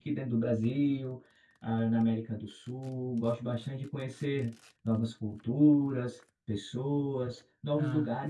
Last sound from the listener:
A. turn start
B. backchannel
B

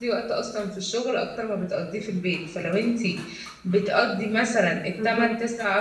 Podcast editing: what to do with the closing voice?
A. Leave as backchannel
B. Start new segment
A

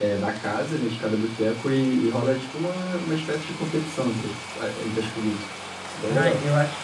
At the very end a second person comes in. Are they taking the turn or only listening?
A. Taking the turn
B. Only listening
A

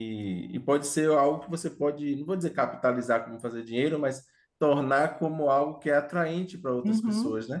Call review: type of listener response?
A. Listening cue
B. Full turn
B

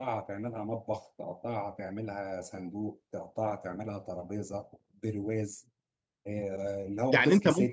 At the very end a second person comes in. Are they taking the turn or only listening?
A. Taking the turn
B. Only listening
A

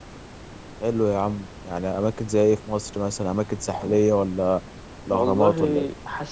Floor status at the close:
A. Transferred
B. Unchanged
A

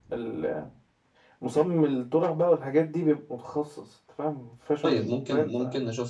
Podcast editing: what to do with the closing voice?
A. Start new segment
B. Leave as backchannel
A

